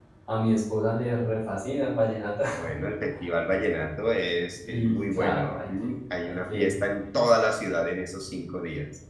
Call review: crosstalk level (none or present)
present